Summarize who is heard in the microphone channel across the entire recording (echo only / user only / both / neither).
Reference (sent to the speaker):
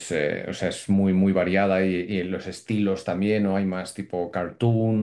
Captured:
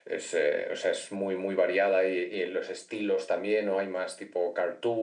echo only